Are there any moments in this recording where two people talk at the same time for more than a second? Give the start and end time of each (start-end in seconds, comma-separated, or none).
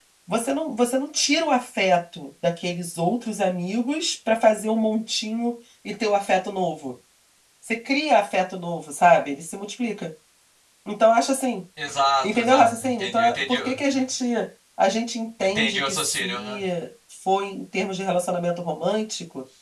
12.2-13.8, 15.4-16.6